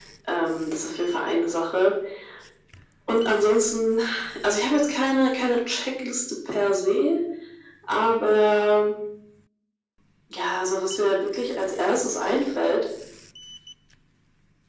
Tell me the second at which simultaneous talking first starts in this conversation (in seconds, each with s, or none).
none